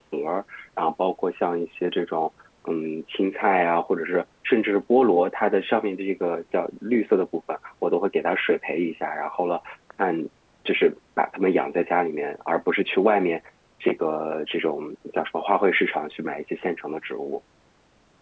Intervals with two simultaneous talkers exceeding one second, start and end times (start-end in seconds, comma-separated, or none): none